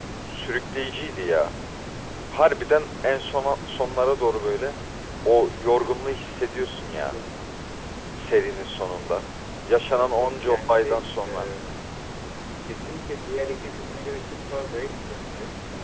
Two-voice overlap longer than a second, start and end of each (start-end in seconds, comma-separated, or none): 9.9-11.5